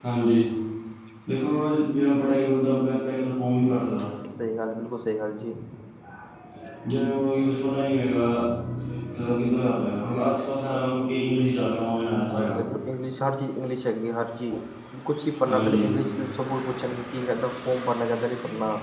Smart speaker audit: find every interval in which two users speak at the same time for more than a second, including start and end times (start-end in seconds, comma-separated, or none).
none